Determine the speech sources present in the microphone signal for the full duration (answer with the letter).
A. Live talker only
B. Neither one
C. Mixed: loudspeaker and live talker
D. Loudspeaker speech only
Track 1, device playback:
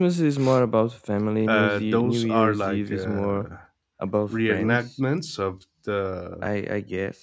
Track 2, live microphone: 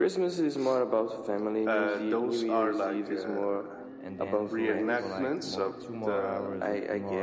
C